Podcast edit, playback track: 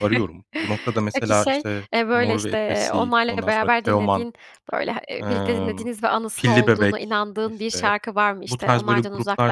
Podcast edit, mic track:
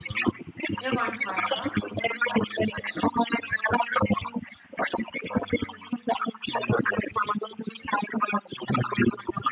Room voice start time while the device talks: 0.8 s

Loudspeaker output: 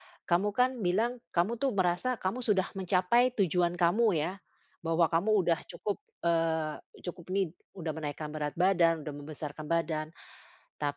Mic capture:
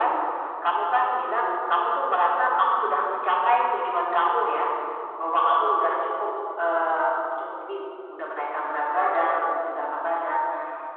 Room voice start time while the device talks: none

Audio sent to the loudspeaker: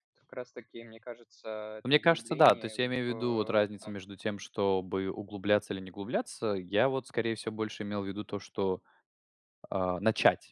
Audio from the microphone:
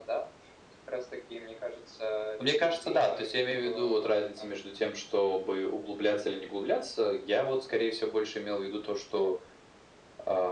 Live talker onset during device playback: none

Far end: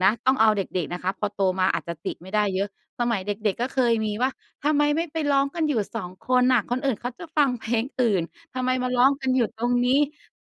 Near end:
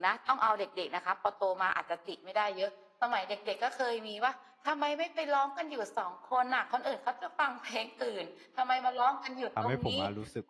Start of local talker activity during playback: 9.6 s

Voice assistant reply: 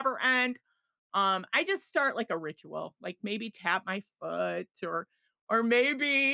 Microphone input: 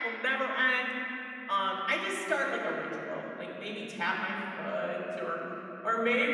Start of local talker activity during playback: none

